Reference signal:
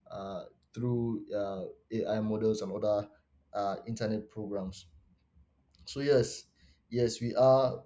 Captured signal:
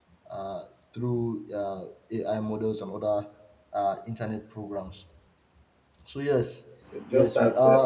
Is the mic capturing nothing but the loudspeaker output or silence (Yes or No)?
No